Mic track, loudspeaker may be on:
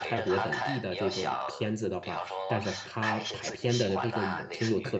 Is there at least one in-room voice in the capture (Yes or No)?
Yes